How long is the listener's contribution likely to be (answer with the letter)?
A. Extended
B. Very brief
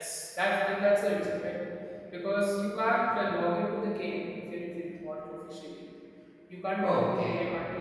B